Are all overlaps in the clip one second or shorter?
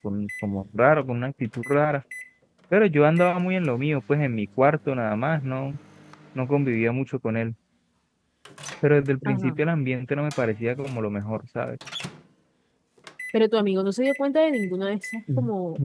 Yes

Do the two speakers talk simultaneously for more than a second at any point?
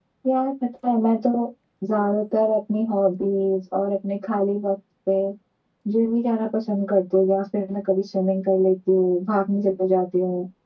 No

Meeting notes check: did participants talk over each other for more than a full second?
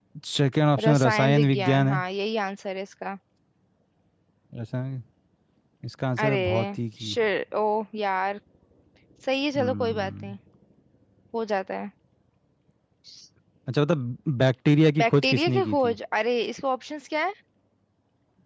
Yes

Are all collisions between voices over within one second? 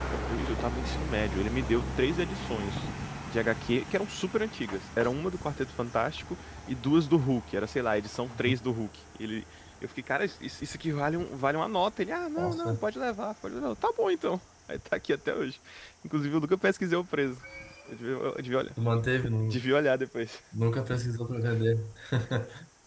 Yes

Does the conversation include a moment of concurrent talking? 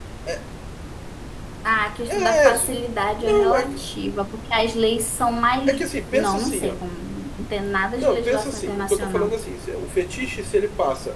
Yes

